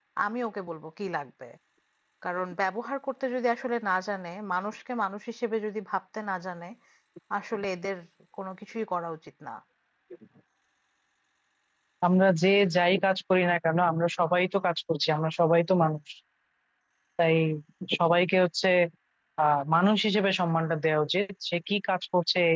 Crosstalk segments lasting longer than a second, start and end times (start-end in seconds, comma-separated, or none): none